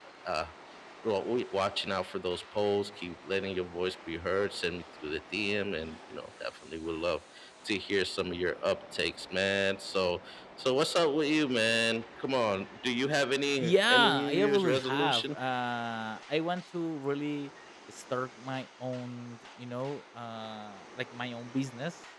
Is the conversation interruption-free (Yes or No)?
No